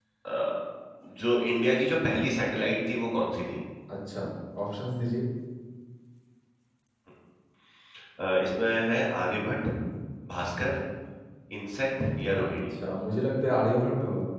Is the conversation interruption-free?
Yes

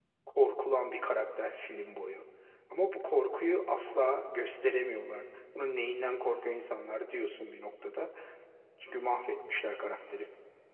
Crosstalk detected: No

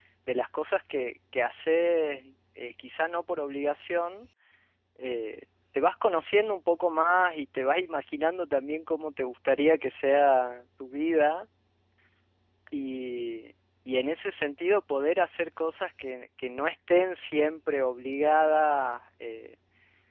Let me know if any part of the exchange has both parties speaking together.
No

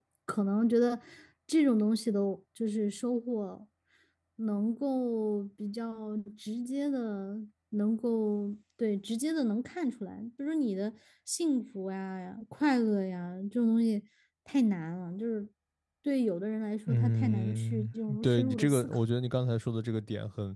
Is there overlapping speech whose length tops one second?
Yes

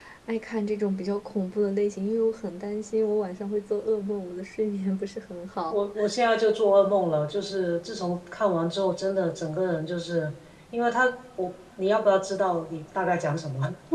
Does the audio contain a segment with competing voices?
No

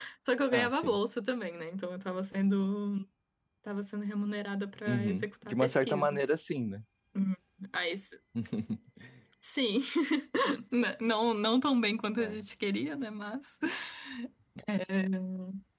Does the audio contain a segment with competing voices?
Yes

